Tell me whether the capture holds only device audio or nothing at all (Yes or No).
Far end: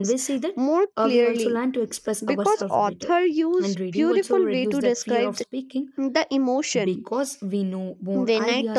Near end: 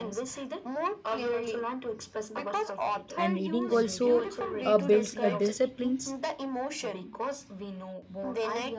No